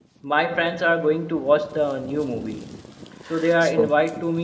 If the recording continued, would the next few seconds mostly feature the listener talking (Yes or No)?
No